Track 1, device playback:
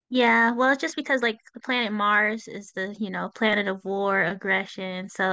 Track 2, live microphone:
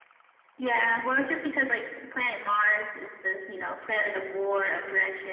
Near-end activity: none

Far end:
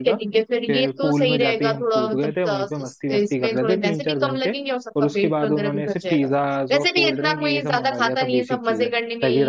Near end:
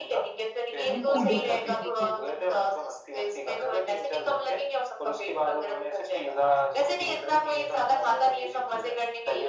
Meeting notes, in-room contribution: present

